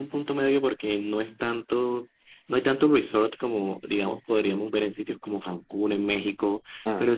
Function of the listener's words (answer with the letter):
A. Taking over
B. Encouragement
B